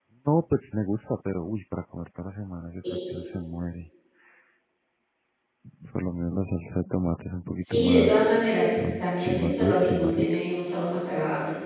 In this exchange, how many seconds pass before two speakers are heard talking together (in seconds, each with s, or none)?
7.7 s